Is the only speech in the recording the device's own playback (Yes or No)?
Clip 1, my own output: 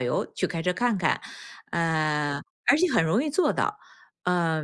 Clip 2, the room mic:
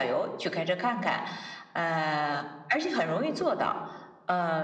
Yes